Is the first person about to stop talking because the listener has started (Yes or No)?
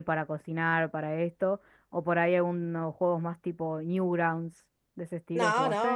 Yes